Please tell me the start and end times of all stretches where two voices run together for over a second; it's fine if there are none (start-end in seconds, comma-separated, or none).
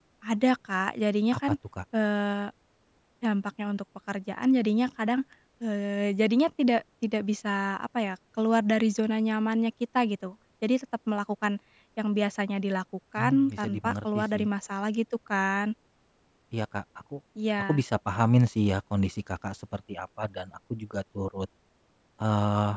13.2-14.4